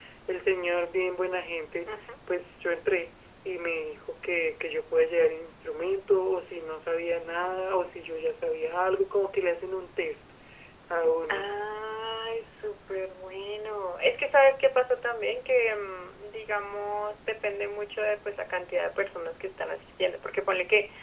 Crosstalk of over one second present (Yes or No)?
No